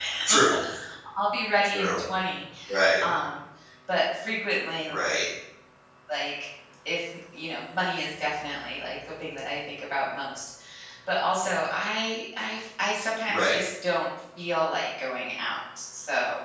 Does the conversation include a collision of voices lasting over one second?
No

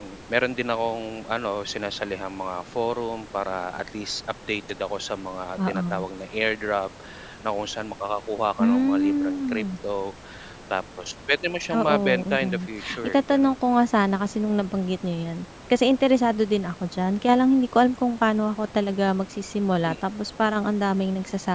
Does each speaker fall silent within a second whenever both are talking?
No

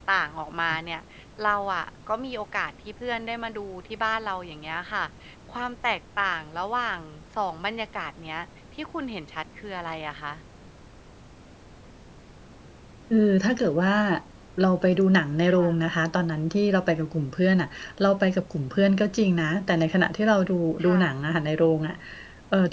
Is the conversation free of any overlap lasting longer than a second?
Yes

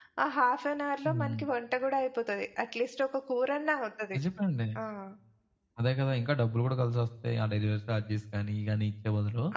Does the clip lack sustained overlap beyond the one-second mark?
Yes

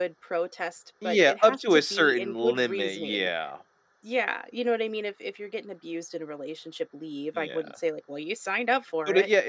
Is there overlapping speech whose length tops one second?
Yes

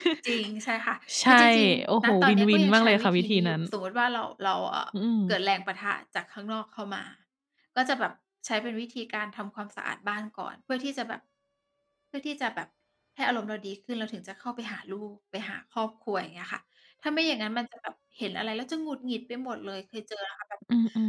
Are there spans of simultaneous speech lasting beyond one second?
Yes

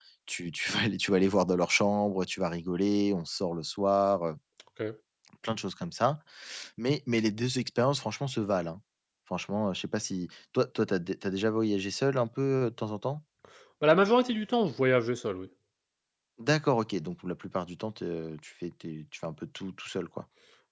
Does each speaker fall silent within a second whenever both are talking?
Yes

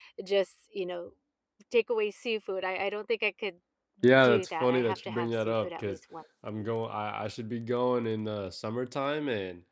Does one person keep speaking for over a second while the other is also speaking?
Yes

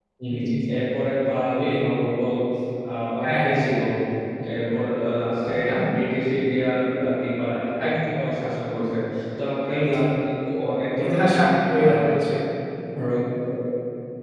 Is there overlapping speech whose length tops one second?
No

